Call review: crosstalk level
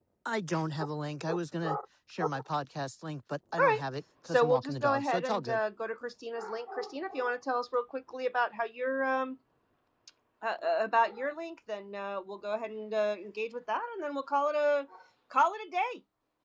present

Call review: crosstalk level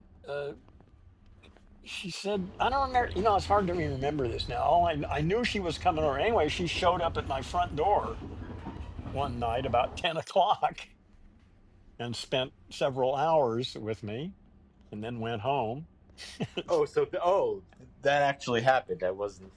none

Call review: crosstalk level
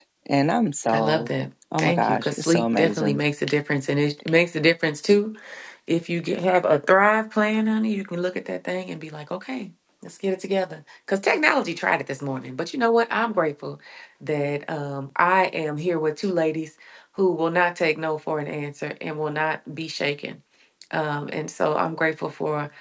present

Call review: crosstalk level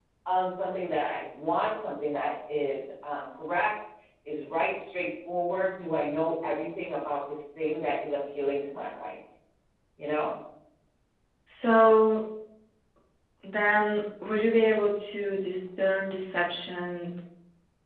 none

